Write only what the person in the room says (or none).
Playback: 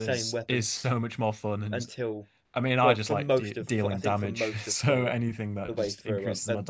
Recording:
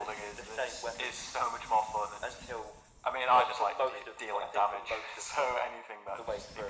none